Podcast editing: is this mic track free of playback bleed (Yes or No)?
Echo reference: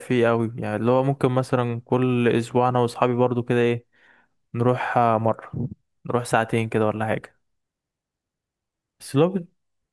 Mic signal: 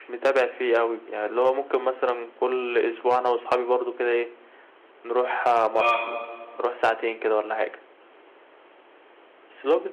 No